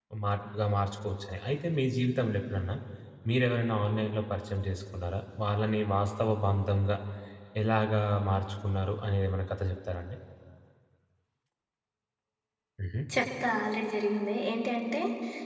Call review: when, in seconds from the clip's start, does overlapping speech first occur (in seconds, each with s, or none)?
none